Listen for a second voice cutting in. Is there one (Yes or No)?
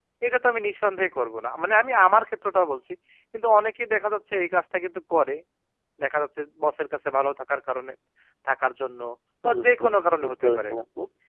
Yes